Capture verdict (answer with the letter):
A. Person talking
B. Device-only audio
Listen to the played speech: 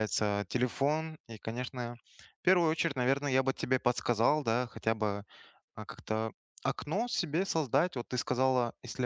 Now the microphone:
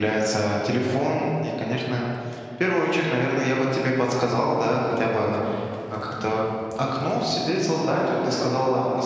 B